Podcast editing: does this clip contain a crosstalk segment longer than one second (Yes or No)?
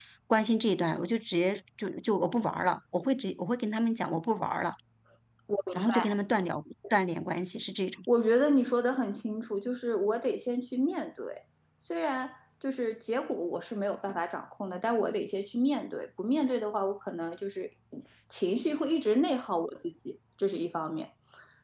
No